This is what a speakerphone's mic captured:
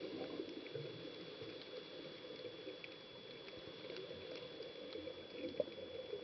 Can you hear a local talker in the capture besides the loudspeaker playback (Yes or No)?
No